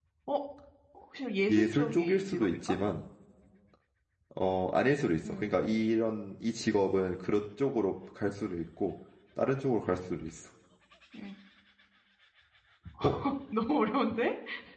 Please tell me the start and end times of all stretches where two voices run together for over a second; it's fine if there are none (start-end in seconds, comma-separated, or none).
1.5-2.8